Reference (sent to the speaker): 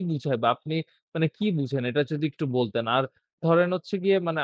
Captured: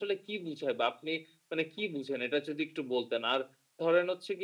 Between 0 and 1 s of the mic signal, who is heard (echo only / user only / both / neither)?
echo only